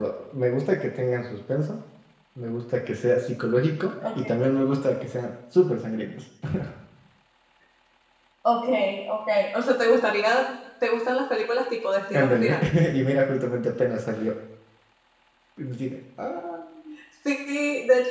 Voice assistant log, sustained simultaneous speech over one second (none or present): none